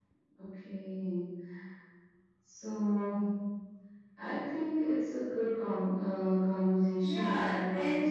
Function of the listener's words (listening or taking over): taking over